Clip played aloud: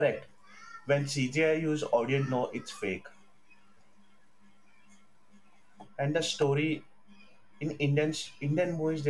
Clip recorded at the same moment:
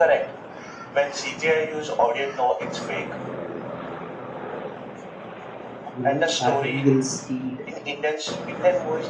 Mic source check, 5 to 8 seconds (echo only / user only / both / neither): both